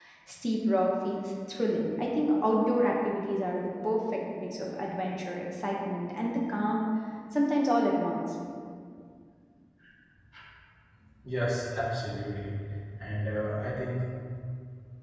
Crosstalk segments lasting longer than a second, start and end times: none

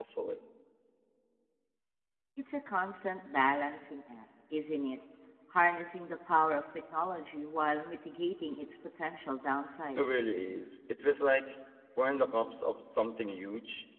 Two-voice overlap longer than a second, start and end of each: none

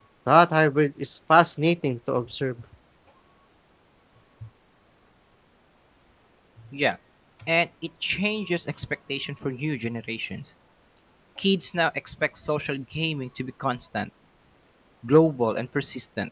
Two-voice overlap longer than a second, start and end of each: none

